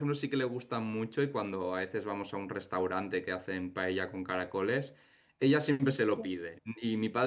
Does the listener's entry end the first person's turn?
No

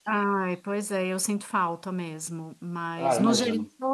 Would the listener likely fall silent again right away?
Yes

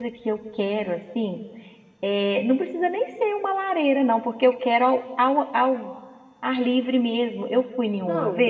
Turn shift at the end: No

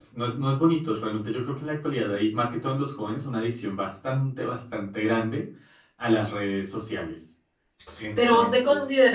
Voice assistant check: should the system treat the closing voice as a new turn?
Yes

